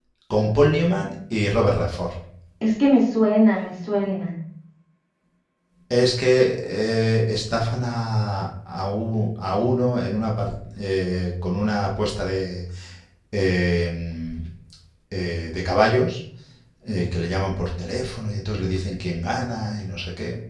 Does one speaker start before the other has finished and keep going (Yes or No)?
No